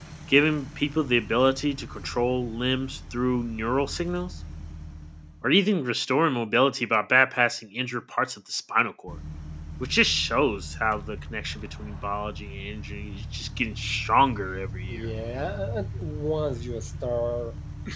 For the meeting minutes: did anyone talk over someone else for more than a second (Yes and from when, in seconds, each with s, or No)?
No